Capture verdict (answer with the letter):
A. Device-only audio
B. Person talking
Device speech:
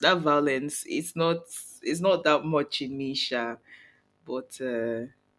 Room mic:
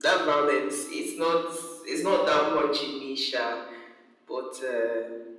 A